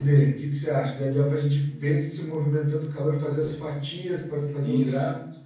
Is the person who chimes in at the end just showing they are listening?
No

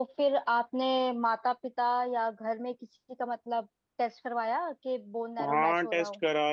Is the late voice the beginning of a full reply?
Yes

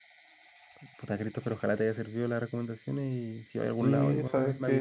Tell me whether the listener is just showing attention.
No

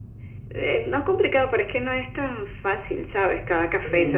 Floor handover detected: No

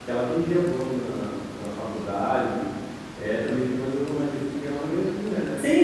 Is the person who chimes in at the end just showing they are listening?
No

